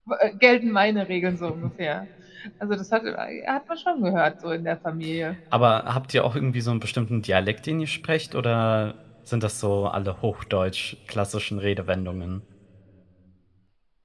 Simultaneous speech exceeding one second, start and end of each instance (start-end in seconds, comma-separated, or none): none